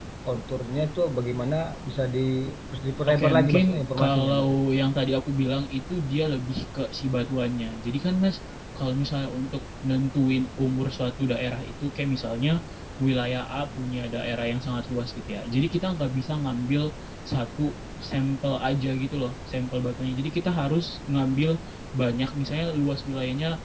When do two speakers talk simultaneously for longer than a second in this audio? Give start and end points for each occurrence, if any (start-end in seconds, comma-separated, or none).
3.1-4.5